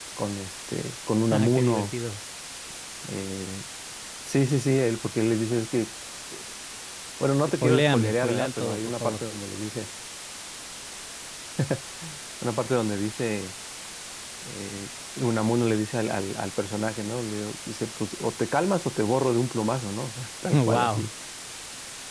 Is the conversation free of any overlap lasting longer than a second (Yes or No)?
No